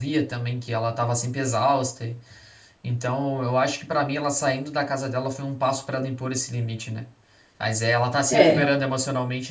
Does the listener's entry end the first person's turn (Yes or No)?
No